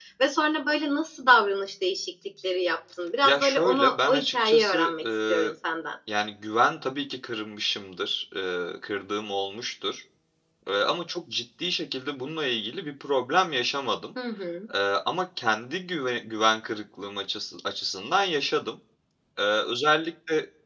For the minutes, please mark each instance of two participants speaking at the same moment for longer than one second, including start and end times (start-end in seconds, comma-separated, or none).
3.2-5.5